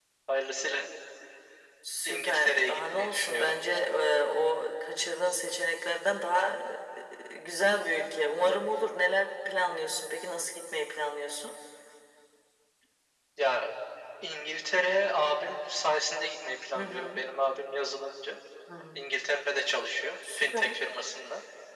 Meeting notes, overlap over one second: present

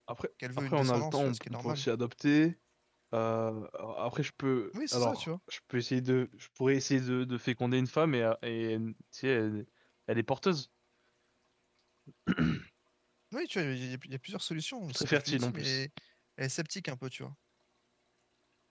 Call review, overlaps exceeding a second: present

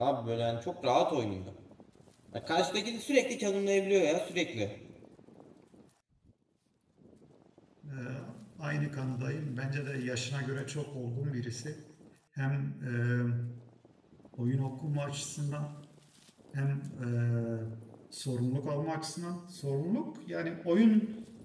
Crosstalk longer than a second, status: none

